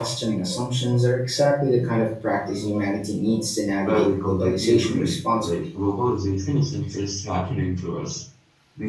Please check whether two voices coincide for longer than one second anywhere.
Yes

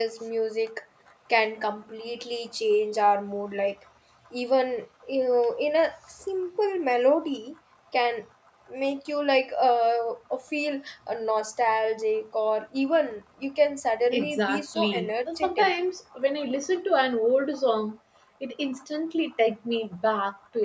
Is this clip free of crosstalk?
No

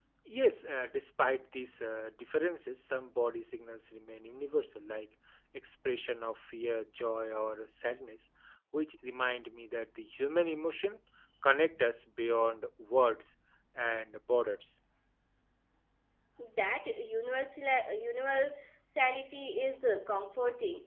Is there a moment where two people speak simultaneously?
No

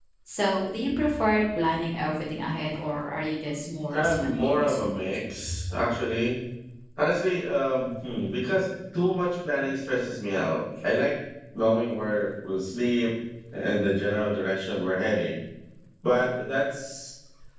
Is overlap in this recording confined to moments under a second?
No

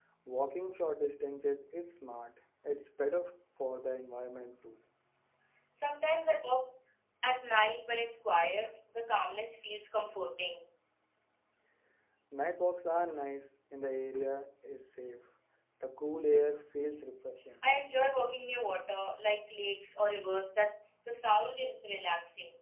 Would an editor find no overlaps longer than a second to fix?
Yes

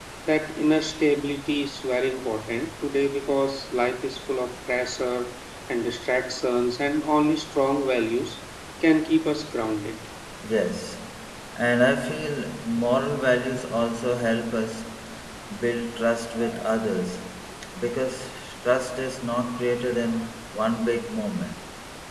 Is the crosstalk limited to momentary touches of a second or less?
Yes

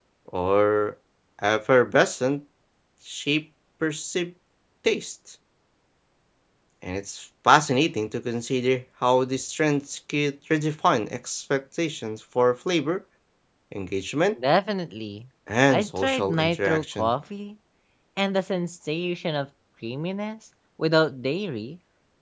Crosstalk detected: Yes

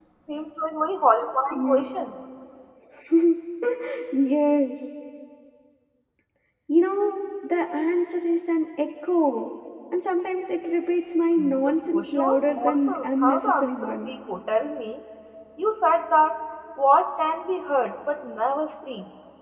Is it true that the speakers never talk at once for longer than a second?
No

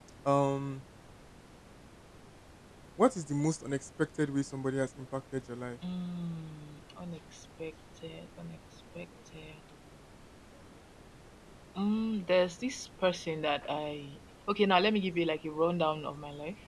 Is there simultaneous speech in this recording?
No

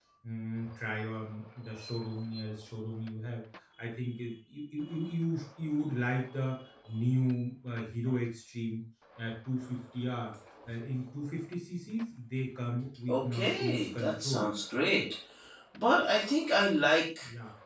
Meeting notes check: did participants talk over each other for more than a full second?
Yes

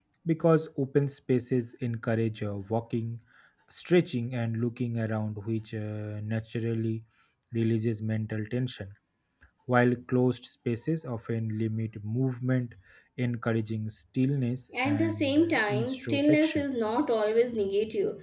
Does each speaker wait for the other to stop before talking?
No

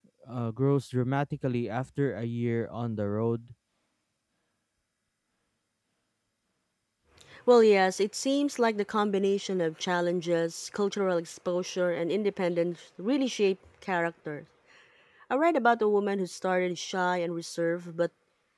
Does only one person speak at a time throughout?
Yes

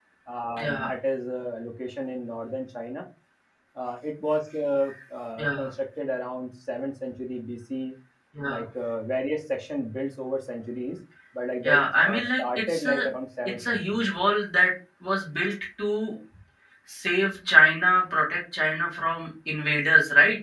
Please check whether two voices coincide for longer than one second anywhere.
Yes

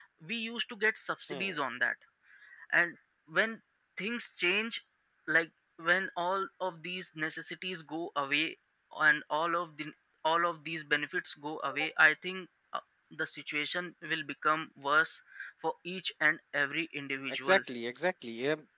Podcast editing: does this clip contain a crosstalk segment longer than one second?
No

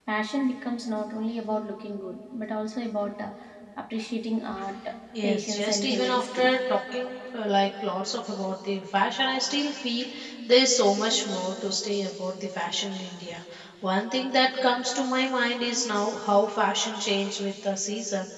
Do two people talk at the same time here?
Yes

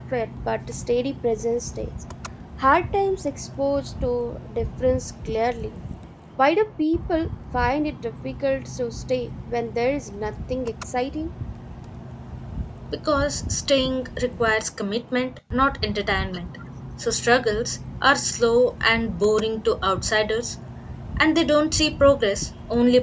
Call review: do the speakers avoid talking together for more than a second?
Yes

